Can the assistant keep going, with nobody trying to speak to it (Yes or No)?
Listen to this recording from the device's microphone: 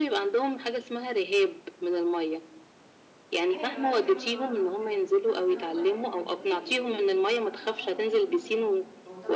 No